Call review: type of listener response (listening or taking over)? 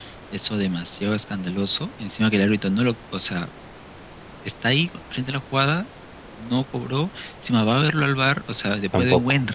listening